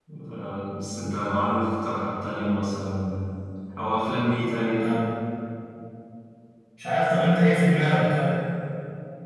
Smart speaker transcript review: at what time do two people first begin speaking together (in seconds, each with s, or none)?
none